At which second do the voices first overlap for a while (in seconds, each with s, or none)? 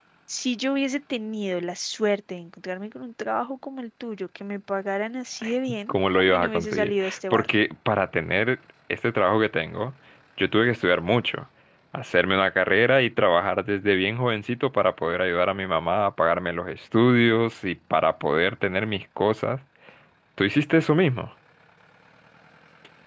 5.9 s